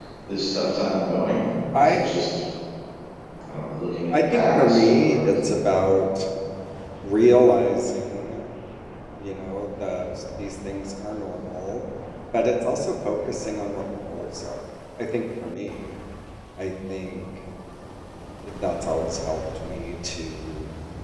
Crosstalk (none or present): present